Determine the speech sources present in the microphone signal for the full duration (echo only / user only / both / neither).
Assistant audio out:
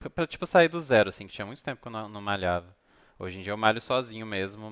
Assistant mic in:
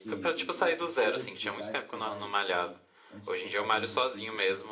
both